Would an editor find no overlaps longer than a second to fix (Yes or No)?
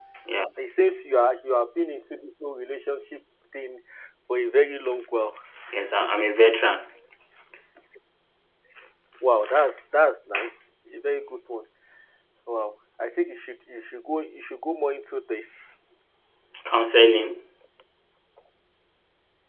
Yes